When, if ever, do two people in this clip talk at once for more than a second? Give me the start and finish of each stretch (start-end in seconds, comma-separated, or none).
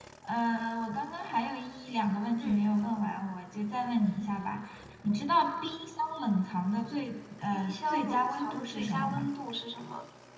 7.5-9.3